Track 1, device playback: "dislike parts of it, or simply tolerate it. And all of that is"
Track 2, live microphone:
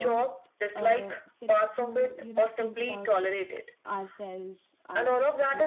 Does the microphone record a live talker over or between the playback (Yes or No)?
Yes